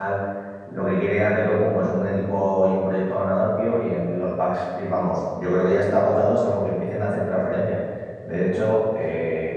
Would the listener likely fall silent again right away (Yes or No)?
Yes